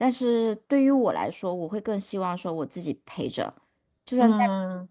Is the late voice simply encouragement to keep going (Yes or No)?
Yes